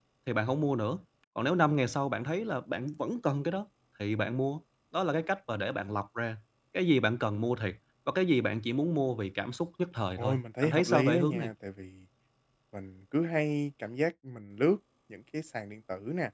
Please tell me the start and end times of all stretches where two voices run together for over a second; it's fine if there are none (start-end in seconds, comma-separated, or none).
10.2-11.5